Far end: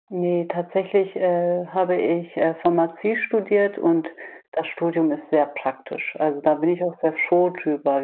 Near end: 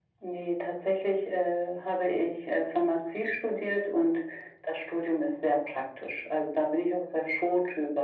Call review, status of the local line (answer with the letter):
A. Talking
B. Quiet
B